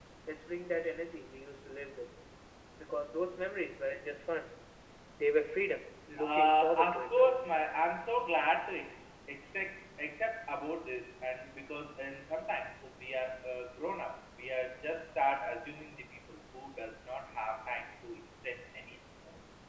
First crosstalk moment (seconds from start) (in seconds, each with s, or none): 6.2 s